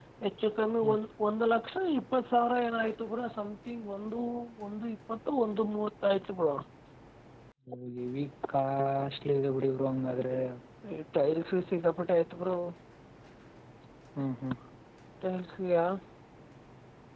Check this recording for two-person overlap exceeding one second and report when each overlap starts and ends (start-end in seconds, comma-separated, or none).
none